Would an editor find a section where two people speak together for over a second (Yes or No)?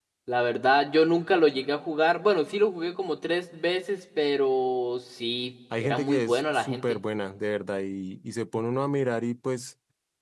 Yes